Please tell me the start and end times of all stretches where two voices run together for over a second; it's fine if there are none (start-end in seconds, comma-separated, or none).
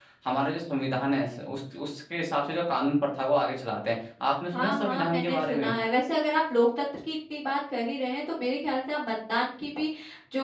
4.5-5.7